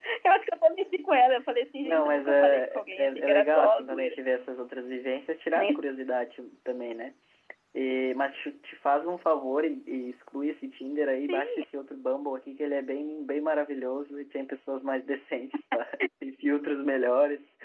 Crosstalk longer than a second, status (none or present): present